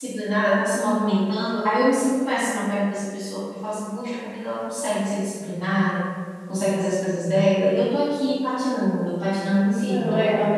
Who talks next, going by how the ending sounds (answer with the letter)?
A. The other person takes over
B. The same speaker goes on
A